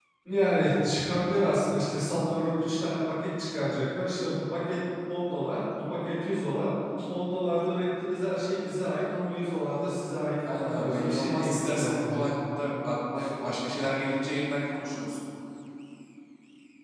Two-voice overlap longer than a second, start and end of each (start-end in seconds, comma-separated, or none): 10.5-12.3